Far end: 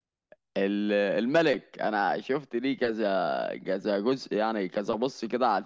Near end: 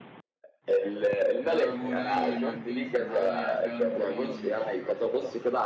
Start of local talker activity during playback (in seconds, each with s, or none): 1.4 s